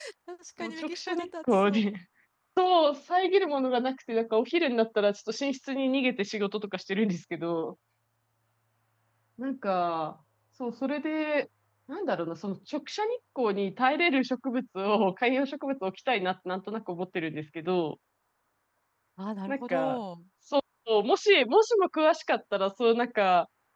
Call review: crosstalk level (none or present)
present